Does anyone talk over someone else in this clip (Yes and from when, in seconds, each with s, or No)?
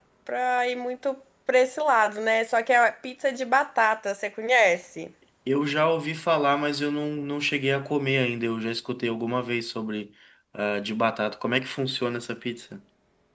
No